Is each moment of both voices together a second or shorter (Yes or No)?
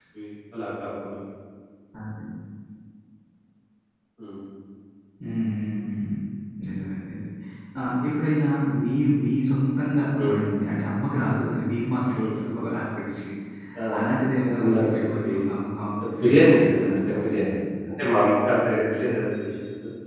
No